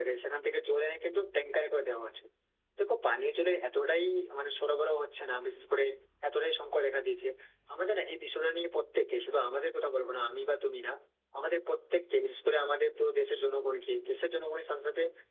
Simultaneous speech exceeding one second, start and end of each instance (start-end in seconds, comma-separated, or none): none